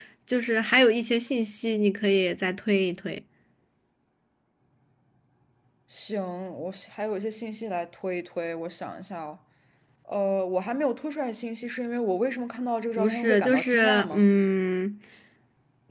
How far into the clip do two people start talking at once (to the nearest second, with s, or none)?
13 s